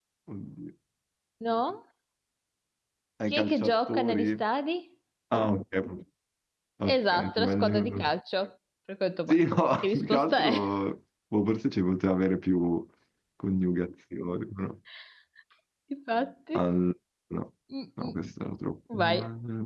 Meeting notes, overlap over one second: present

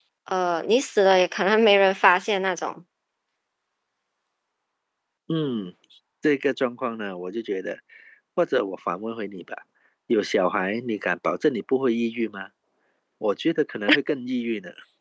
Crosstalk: none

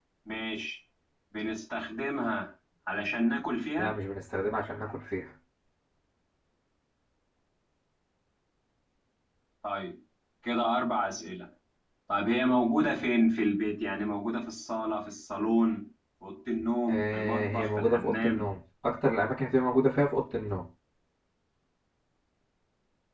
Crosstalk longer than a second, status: present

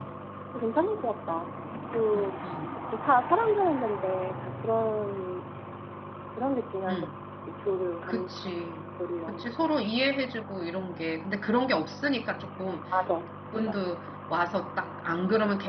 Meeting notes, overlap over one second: none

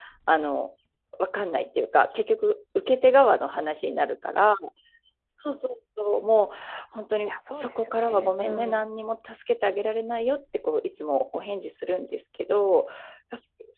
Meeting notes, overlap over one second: present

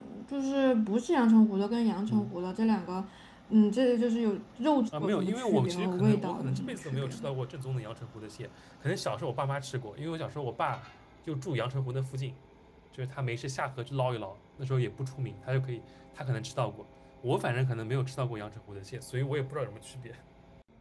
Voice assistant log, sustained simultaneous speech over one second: present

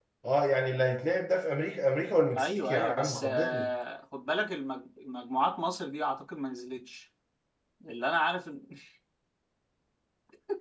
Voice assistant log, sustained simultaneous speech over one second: present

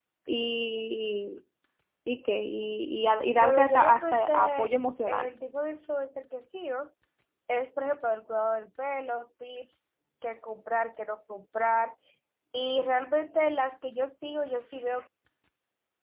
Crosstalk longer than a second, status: present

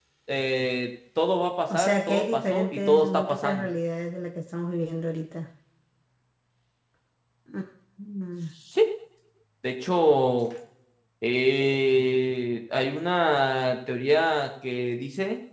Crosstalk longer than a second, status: present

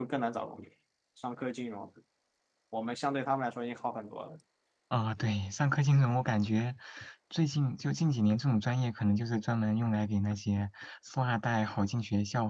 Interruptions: none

